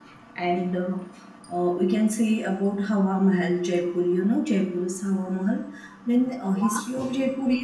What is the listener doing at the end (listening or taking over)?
listening